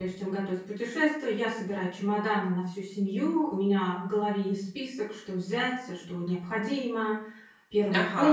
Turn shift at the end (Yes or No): Yes